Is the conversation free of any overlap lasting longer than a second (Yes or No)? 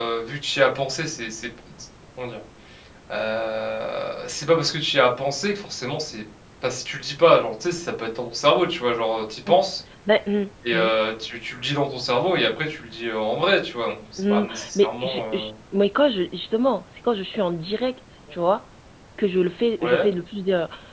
No